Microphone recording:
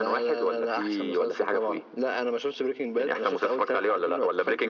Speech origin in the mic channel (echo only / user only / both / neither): echo only